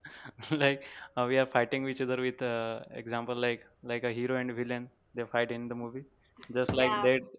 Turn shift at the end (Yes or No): No